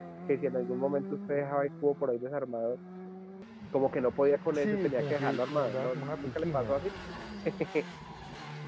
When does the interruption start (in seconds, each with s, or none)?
4.5 s